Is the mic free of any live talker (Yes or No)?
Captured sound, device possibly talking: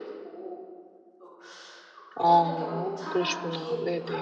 No